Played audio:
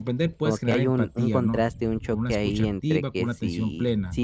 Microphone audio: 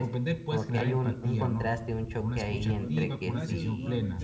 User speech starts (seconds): 2.8 s

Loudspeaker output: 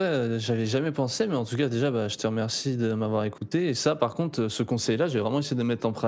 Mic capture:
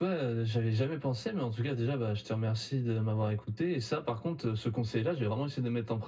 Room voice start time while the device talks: none

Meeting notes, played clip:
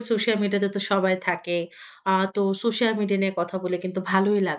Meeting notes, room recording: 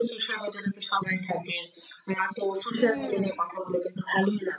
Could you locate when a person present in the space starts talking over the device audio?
2.8 s

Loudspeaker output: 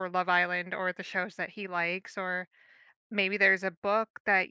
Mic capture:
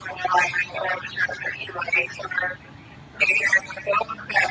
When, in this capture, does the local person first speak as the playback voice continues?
none

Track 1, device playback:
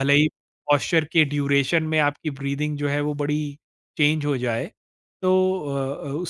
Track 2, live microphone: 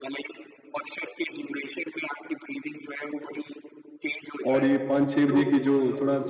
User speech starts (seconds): 4.5 s

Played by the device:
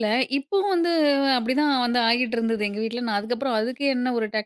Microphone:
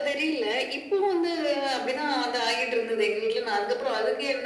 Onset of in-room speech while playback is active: none

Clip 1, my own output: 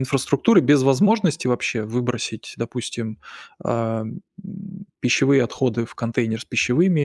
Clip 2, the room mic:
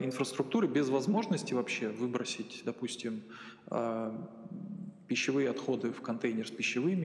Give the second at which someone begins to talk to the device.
none

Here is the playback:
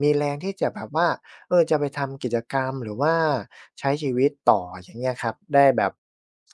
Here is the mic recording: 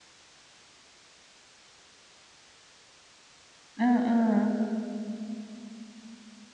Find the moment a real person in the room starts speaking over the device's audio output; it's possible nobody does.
3.8 s

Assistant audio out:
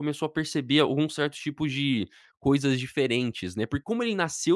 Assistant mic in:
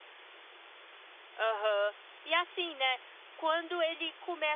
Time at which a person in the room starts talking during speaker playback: 1.4 s

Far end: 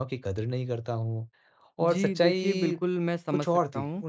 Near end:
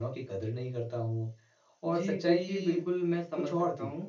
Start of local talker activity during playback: none

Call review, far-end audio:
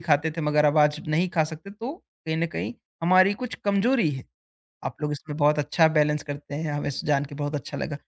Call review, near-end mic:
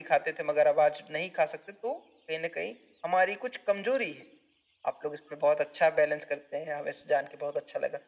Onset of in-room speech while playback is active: none

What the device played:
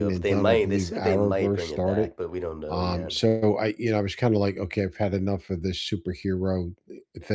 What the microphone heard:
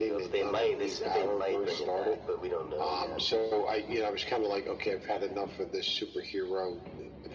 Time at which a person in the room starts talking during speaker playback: none

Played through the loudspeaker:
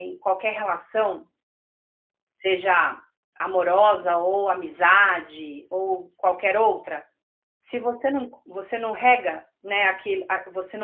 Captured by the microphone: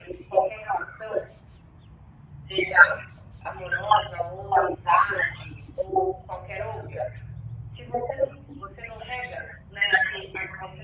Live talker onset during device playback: none

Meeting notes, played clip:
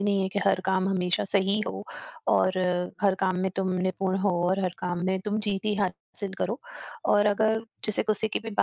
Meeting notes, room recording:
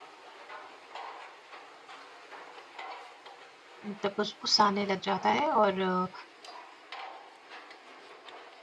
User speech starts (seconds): 3.9 s

